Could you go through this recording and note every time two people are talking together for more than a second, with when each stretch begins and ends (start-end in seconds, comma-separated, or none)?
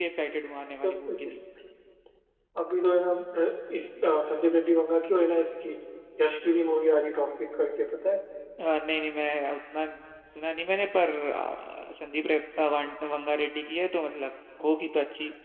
none